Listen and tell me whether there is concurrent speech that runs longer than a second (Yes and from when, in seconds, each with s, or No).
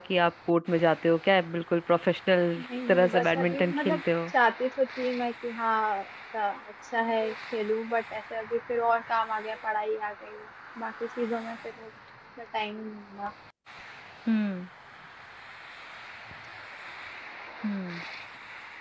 Yes, from 2.6 s